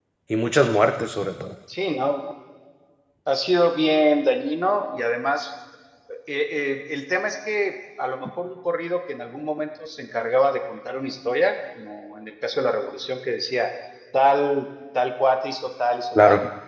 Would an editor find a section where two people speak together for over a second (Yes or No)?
No